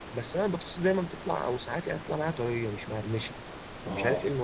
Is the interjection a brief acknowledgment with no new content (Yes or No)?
No